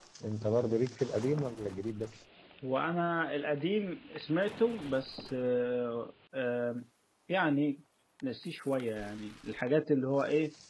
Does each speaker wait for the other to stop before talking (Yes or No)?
Yes